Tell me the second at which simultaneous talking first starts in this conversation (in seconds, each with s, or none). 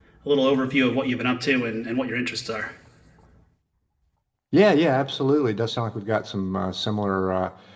none